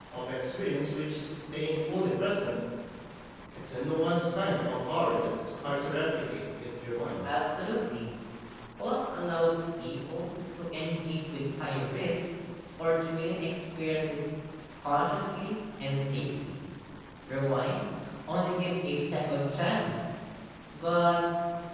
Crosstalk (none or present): none